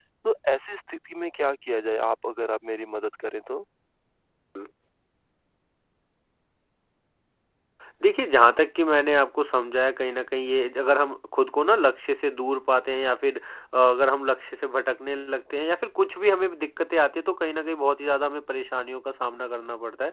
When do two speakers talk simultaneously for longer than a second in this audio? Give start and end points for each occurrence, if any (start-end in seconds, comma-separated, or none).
none